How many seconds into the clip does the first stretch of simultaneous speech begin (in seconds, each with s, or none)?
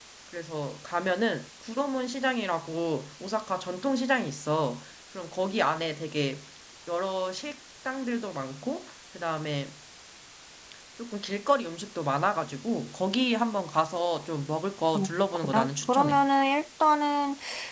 14.9 s